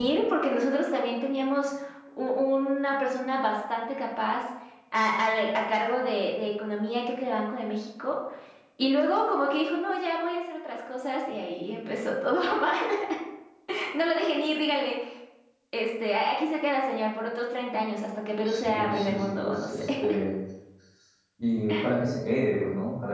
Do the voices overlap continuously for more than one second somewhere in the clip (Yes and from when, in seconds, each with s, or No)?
Yes, from 18.4 s